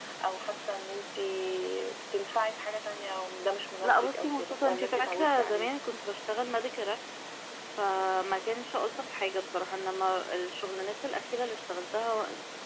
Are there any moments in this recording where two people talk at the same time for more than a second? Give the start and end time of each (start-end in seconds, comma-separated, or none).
3.8-5.7